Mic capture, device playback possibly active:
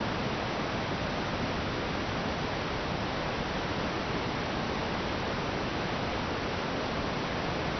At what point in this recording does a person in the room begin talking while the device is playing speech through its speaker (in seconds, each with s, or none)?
none